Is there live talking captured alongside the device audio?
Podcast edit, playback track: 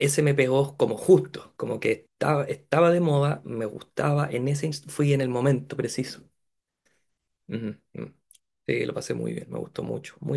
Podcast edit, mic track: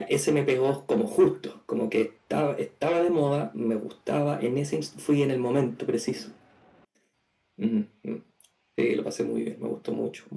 No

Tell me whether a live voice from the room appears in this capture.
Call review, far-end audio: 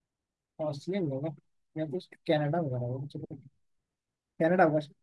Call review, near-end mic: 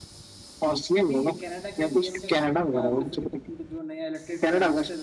Yes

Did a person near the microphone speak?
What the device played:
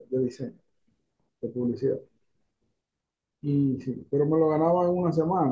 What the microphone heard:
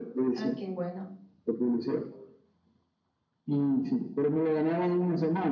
Yes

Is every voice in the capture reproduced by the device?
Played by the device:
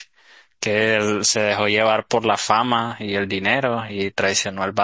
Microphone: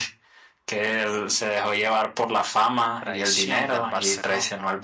No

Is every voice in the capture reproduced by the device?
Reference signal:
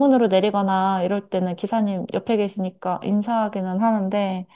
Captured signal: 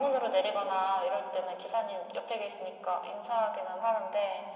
Yes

